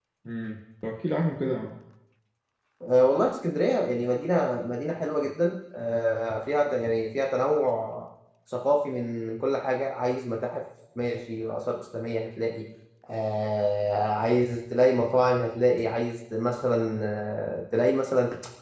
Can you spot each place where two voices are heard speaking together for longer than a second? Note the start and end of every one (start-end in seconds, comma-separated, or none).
none